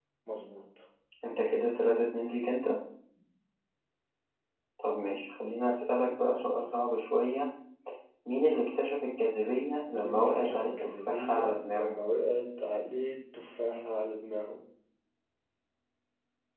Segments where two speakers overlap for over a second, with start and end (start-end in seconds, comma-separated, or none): 9.9-12.0